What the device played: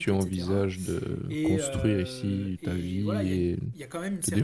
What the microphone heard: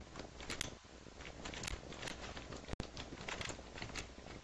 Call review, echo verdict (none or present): none